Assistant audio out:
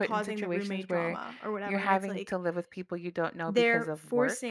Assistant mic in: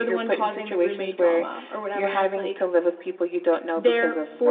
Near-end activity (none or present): none